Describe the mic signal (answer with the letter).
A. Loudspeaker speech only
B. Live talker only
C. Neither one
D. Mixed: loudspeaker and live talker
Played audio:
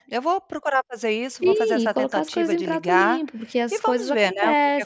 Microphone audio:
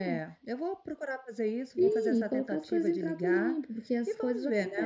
A